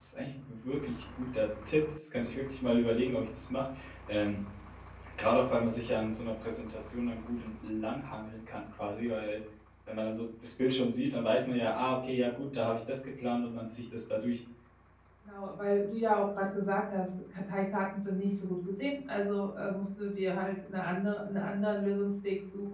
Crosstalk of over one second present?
No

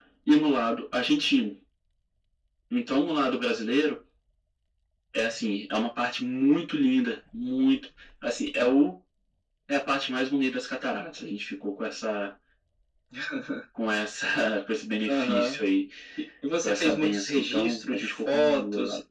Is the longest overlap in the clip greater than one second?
Yes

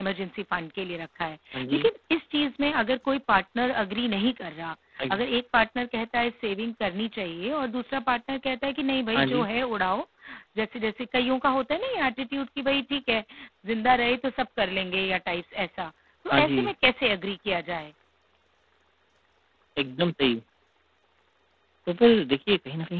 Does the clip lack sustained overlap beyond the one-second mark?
Yes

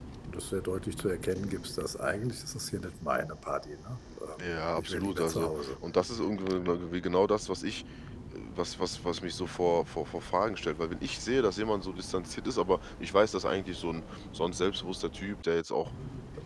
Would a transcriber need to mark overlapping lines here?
Yes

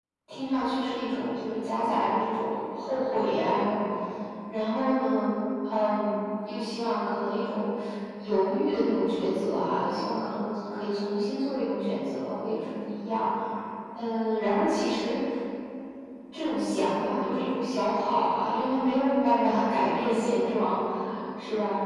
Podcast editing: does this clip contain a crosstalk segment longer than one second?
No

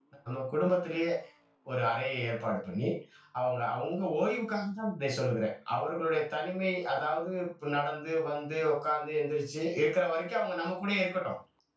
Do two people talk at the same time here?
No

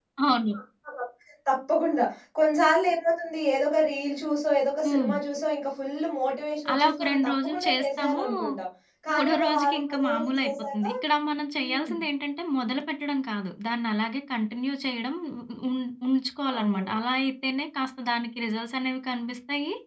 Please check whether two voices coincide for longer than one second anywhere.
Yes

